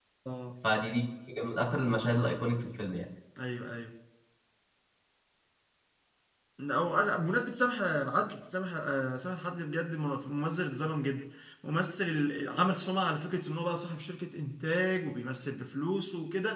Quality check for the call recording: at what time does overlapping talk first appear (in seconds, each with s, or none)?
none